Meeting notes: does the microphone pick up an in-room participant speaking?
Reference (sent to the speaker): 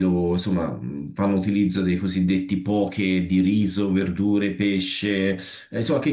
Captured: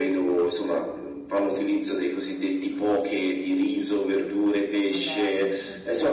Yes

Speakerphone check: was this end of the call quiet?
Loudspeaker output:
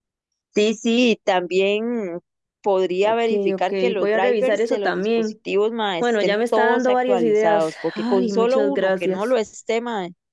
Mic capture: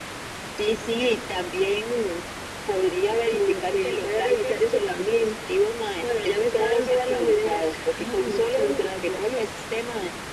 Yes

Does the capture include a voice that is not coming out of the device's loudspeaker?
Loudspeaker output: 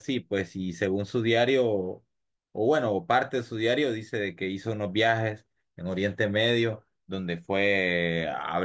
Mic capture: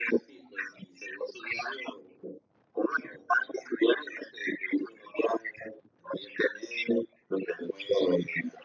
No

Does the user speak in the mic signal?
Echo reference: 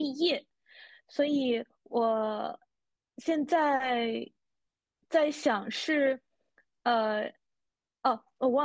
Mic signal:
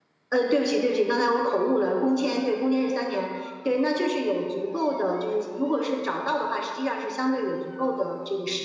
Yes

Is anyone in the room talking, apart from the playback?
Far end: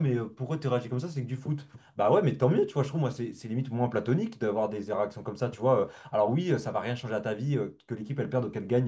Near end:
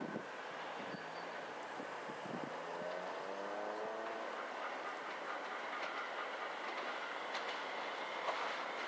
No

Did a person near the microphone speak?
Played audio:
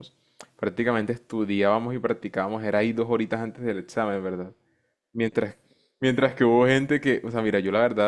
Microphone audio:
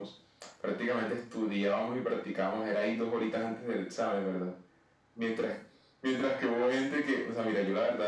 No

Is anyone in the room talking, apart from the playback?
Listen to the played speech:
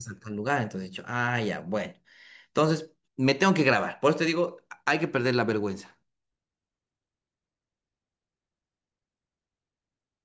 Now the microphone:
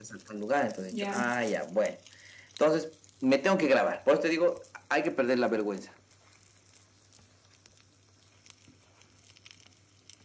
Yes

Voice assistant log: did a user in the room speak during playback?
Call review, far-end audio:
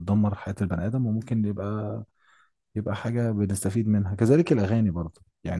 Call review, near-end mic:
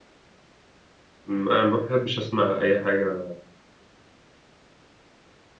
Yes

